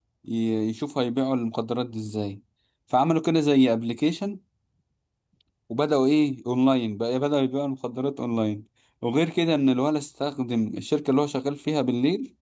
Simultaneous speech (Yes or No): No